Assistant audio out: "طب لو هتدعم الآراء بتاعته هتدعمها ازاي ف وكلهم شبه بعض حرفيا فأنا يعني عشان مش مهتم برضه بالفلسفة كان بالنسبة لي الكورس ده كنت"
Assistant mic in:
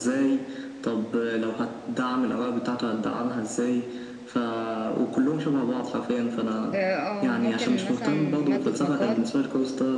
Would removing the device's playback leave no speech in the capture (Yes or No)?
No